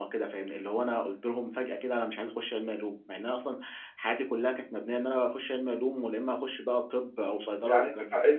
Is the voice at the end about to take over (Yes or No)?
Yes